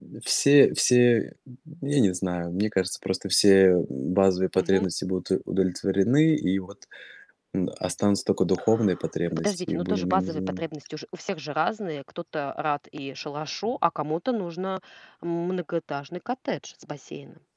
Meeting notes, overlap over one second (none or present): present